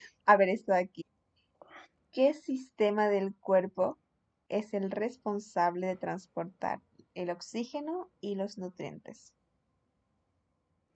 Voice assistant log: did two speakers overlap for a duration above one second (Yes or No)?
No